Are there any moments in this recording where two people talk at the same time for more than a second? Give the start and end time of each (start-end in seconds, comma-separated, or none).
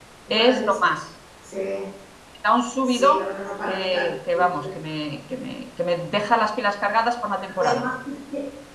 none